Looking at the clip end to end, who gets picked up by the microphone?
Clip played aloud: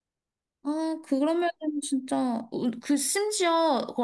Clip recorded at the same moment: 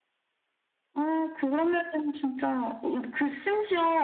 echo only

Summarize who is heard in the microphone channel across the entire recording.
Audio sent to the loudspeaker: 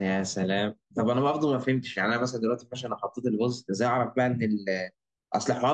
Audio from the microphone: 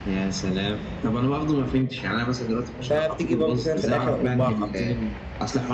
both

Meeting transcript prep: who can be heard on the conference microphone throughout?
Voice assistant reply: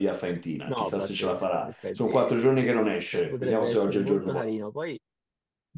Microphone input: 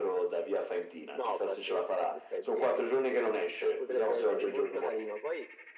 echo only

